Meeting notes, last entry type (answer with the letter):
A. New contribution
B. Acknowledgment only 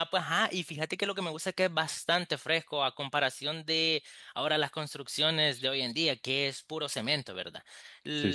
B